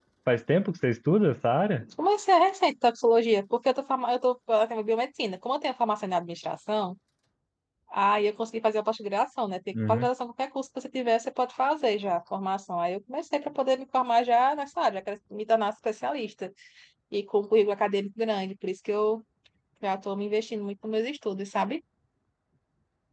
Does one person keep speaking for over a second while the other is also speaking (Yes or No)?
No